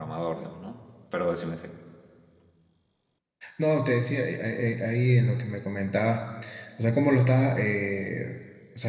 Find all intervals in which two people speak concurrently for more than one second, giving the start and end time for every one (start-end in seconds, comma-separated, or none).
none